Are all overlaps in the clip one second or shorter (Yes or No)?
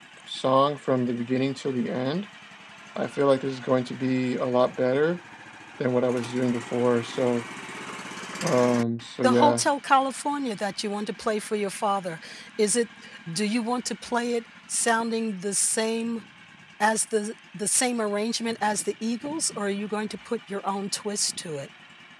Yes